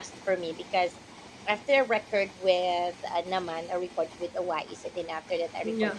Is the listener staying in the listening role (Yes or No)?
Yes